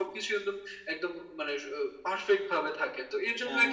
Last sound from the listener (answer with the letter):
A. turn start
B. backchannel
B